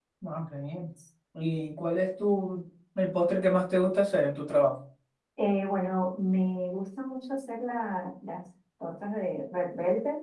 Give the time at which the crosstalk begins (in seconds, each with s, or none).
none